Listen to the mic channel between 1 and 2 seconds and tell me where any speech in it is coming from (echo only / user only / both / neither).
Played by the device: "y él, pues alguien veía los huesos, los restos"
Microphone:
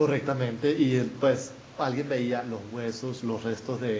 echo only